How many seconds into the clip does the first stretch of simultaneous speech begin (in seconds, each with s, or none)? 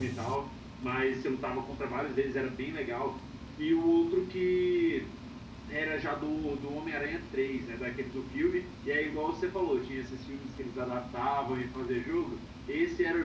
none